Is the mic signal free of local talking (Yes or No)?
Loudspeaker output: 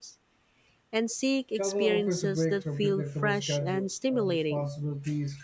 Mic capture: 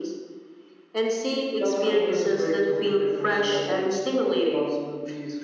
Yes